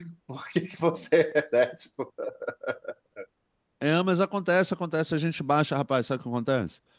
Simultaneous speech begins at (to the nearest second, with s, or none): none